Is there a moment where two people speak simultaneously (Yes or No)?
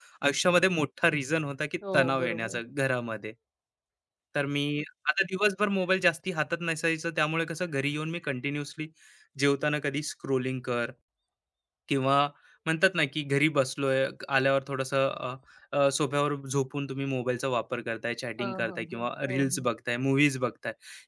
Yes